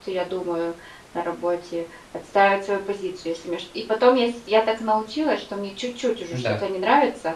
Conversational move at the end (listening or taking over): listening